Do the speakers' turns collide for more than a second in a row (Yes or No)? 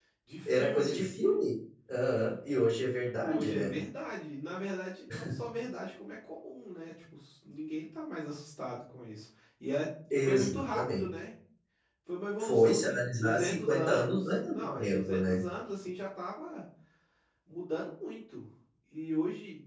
Yes